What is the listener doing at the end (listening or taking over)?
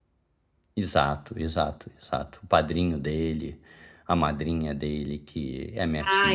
taking over